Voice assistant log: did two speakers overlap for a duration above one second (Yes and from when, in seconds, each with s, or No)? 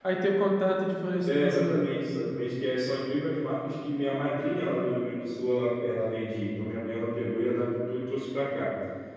No